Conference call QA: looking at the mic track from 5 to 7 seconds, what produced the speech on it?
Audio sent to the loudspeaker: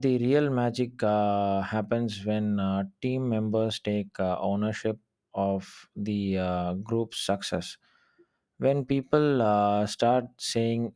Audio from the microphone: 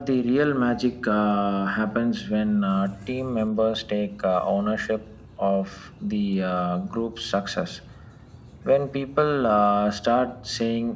echo only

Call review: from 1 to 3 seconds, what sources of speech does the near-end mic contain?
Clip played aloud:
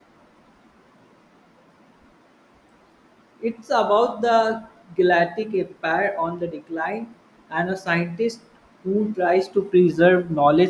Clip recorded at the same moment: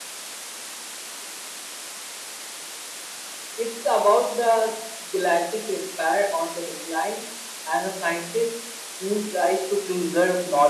neither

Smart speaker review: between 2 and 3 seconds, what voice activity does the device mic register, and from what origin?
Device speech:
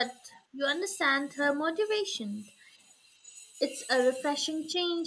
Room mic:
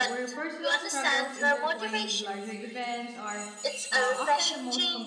both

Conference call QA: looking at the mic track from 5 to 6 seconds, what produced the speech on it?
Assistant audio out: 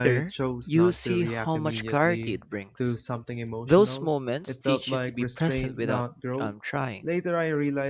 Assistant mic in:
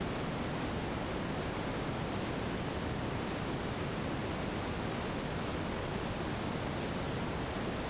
neither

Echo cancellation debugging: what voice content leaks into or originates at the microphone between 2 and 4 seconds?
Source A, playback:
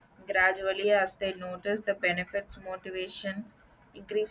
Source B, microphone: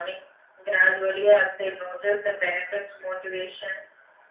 echo only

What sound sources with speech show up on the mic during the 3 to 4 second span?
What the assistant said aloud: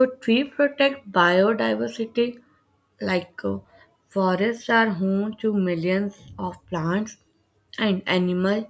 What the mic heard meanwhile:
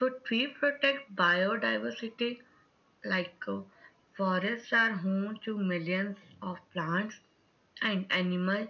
echo only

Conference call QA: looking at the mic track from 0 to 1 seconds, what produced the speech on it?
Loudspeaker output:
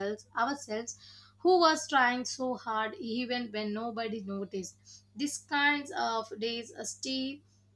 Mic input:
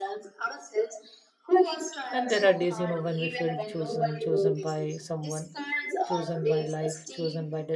echo only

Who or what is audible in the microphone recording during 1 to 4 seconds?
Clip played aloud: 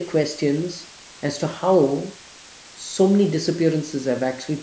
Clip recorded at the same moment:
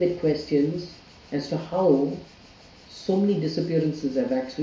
echo only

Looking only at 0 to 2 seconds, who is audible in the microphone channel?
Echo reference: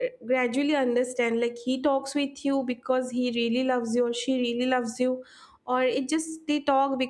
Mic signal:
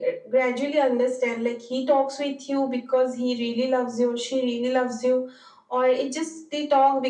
echo only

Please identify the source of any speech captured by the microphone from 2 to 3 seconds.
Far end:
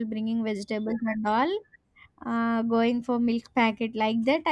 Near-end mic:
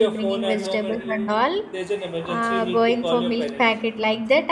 both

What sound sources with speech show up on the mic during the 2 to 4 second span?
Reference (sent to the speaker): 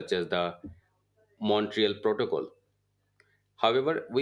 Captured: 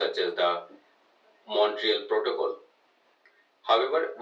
echo only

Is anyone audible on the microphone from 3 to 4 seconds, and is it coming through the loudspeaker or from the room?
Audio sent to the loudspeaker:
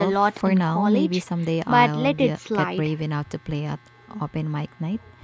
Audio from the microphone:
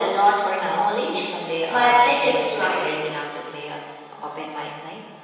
echo only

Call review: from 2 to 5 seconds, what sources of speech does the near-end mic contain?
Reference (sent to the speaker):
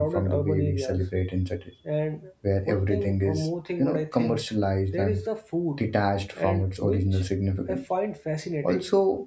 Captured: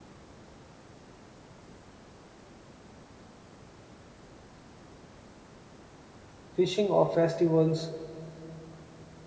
neither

